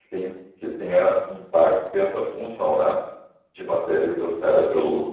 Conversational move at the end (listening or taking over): listening